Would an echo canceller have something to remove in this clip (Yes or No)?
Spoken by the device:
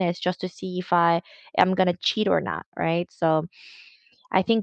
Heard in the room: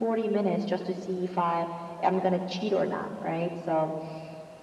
Yes